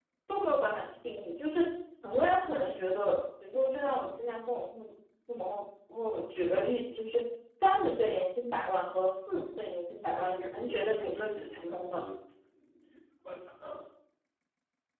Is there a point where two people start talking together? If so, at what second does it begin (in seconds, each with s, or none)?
10.1 s